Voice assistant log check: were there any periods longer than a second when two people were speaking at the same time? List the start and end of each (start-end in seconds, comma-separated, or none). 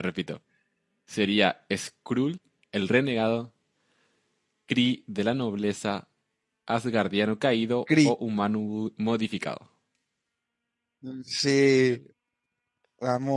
none